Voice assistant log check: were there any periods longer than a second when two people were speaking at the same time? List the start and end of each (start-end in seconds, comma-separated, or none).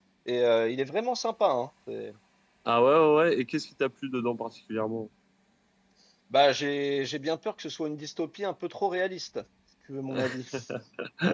none